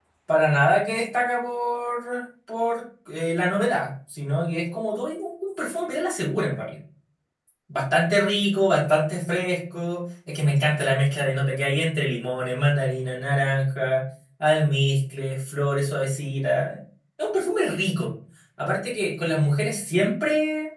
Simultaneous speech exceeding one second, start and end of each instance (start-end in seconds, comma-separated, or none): none